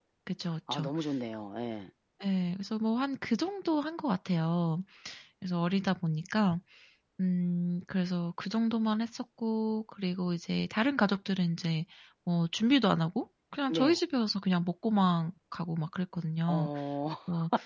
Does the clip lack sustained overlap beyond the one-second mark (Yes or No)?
Yes